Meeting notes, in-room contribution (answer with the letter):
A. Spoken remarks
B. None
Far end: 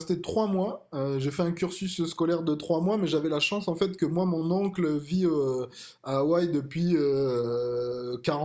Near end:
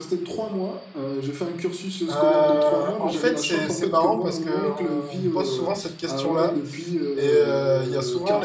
A